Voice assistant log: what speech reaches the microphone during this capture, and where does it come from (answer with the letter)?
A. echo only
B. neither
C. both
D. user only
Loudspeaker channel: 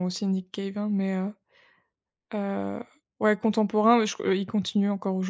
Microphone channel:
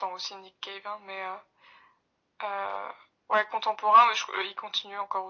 A